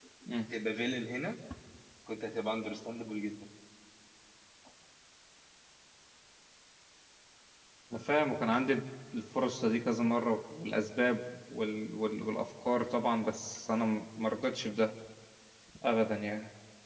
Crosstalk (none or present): none